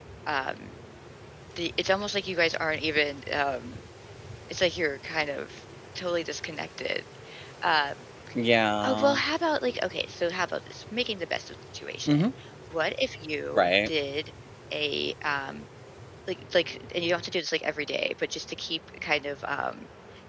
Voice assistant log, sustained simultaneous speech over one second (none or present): none